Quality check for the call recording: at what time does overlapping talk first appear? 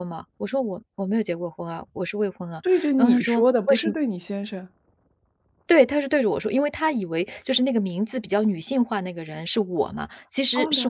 2.7 s

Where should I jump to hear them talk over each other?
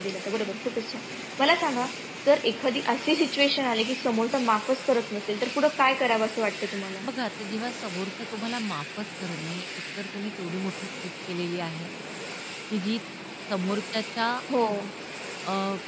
none

